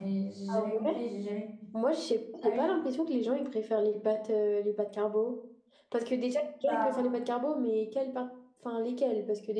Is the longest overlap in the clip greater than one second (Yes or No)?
No